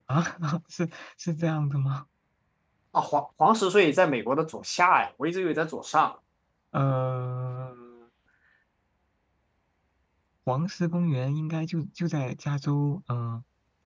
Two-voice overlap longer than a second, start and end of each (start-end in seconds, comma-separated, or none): none